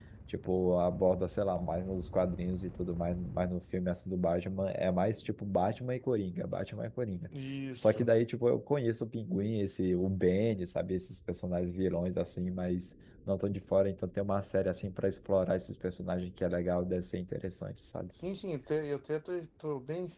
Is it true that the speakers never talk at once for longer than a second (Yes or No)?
Yes